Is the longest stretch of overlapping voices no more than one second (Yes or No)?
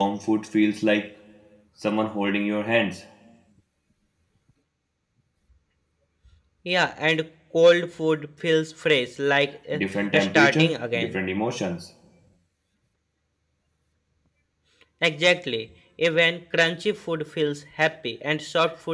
No